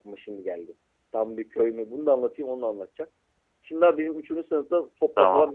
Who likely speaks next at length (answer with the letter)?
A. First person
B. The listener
A